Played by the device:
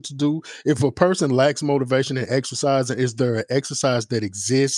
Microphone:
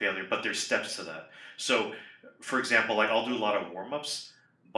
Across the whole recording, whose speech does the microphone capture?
user only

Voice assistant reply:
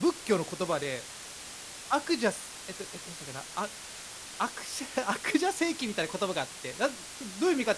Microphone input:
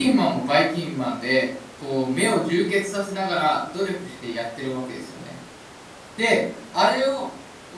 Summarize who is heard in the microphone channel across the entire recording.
user only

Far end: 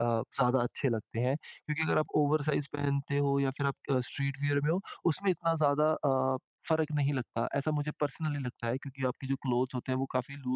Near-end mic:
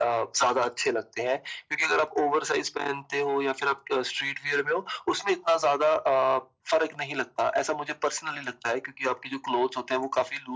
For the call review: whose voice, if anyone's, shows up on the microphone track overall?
echo only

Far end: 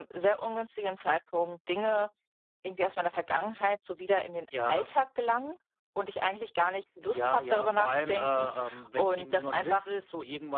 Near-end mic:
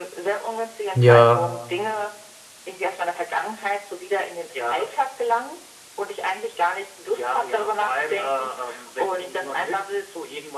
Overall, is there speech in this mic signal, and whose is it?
both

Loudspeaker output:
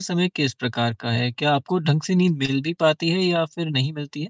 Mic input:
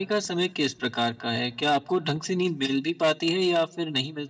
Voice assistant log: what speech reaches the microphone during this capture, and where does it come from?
echo only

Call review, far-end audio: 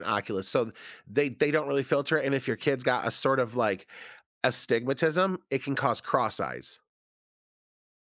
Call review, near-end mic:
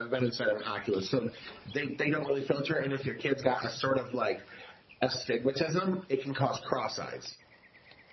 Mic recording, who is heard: echo only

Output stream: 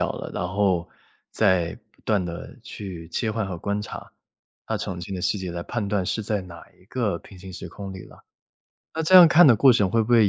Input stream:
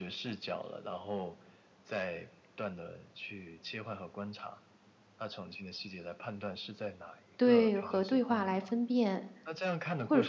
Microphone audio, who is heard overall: both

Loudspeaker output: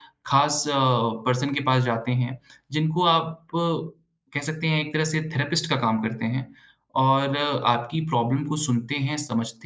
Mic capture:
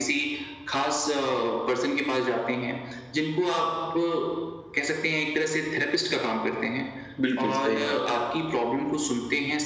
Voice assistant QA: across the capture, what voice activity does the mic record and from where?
both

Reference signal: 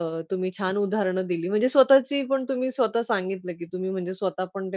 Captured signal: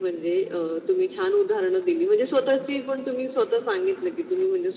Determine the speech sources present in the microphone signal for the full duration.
echo only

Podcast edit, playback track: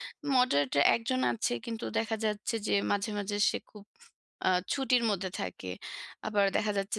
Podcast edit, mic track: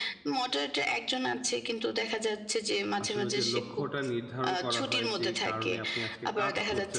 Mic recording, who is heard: both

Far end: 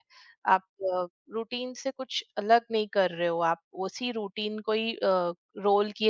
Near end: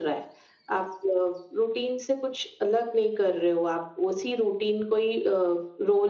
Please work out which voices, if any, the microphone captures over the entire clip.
echo only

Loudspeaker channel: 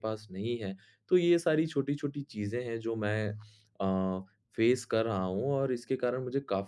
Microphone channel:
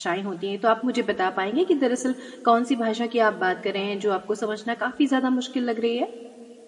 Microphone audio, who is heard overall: user only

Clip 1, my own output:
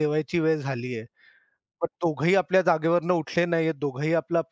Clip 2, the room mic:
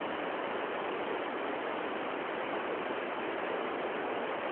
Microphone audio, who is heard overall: neither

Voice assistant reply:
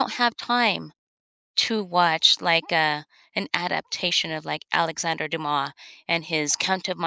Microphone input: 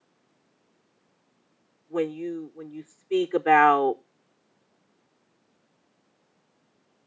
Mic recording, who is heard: user only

